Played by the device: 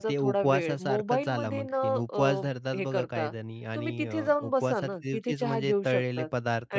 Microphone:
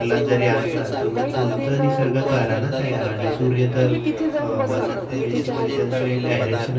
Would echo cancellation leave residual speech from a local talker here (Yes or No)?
Yes